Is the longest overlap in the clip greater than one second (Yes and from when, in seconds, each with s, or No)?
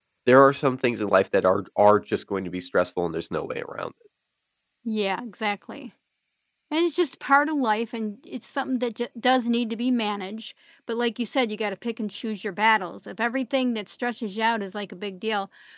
No